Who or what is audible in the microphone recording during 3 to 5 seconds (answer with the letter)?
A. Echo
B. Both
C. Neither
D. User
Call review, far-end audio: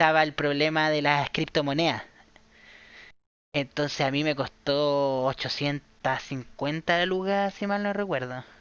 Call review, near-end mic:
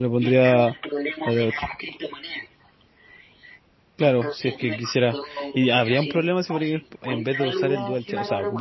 B